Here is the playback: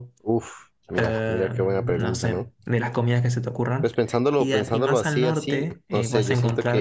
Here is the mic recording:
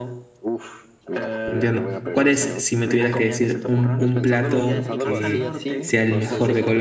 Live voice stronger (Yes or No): Yes